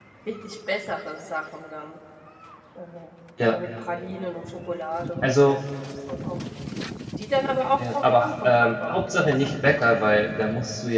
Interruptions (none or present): present